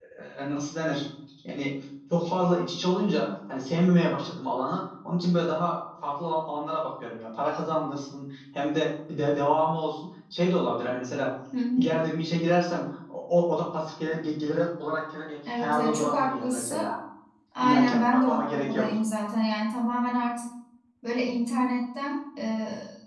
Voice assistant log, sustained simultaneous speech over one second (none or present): present